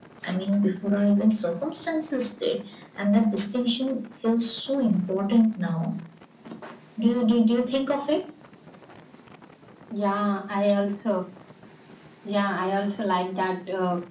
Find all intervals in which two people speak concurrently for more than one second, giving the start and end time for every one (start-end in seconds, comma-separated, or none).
none